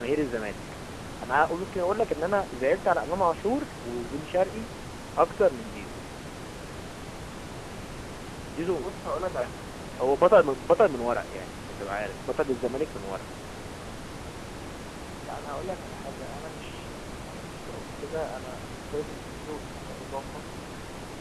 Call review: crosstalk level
none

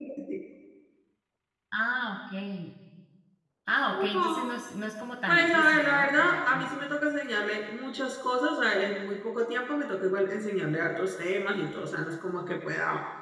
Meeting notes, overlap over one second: present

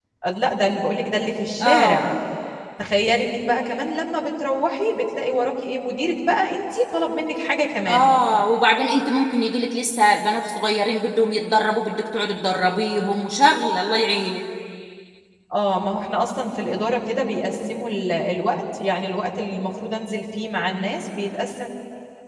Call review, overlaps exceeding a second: none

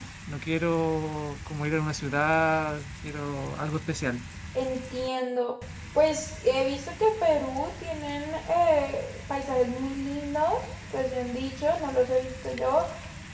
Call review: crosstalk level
none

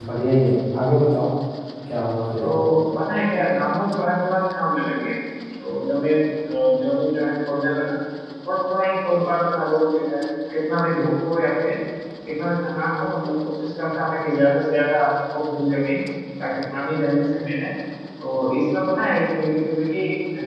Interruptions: none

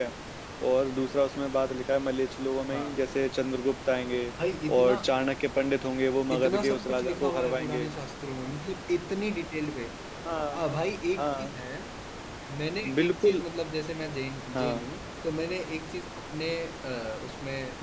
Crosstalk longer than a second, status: present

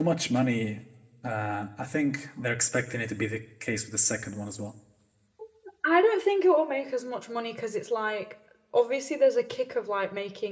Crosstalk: none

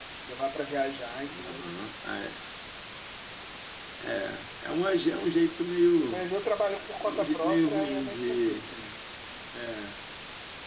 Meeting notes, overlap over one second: present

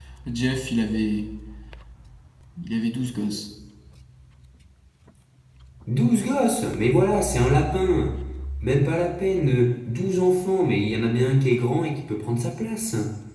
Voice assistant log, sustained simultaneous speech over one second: none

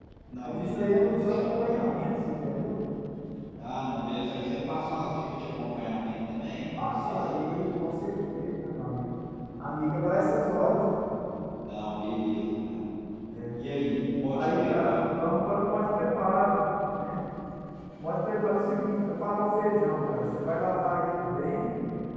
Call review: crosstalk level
present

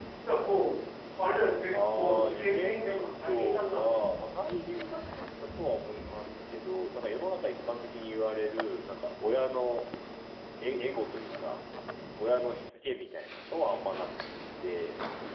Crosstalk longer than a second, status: present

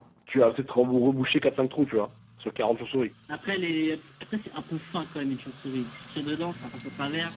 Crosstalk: none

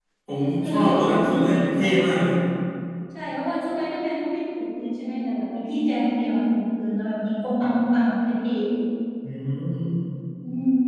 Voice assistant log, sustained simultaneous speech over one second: present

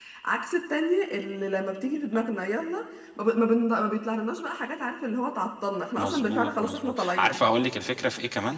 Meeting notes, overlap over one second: present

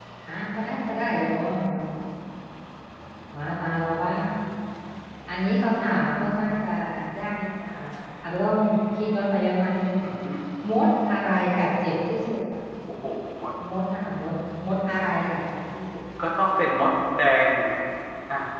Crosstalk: none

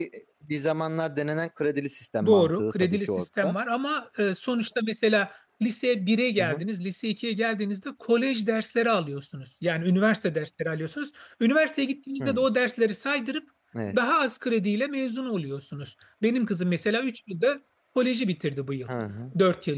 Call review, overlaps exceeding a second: present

